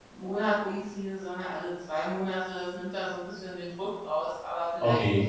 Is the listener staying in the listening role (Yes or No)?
Yes